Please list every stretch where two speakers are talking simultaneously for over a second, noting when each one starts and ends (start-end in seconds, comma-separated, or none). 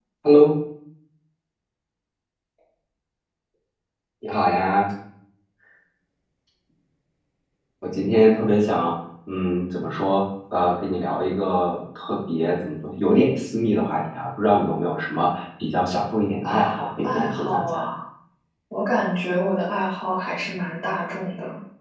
16.4-17.8